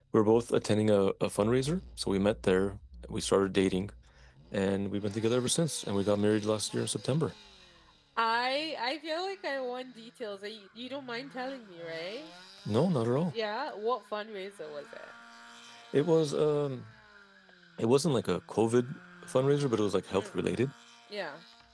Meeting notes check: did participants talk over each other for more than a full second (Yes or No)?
No